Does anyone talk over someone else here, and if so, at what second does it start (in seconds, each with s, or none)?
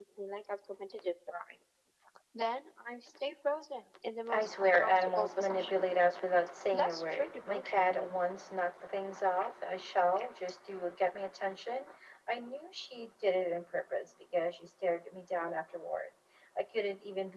4.3 s